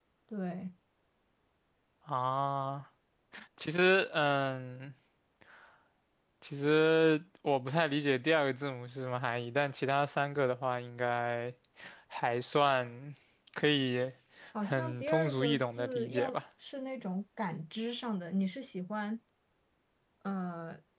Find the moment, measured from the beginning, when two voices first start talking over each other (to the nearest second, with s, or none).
15 s